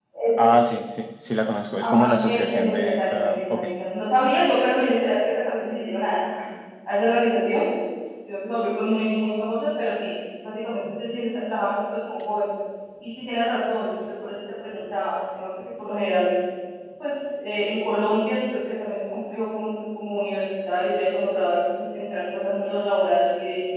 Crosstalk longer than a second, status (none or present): present